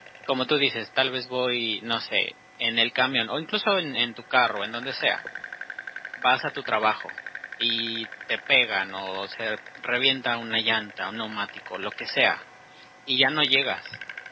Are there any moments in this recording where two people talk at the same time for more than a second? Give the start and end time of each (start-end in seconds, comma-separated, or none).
none